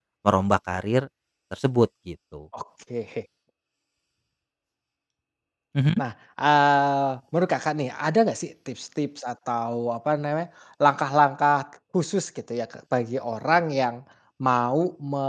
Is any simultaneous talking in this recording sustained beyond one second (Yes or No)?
No